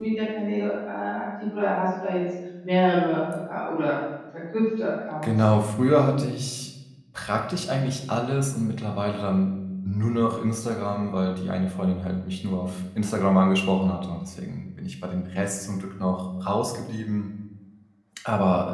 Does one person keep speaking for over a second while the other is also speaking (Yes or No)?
No